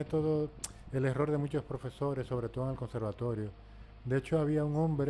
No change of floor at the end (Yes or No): Yes